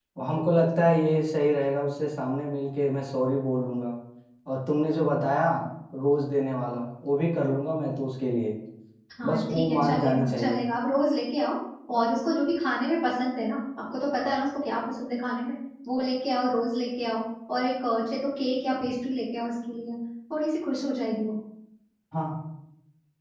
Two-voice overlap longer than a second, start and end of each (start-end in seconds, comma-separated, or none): 9.2-10.6